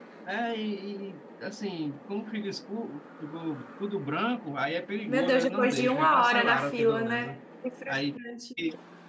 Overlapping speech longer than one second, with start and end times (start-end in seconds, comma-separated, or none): 5.1-7.4